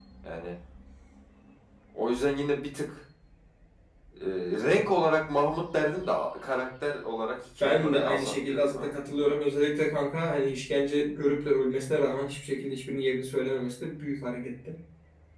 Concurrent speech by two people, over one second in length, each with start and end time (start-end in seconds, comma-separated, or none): 7.6-9.4